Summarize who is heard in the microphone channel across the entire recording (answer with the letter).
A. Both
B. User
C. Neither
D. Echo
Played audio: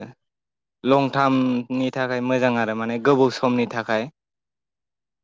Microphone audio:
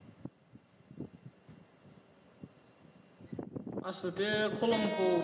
B